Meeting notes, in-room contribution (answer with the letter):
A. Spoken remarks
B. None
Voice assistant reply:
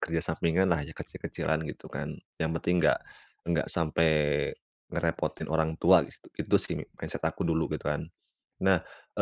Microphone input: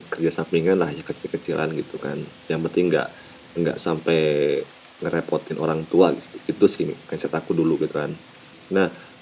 B